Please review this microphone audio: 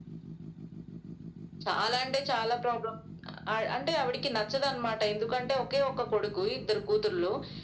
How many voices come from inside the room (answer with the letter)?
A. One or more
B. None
B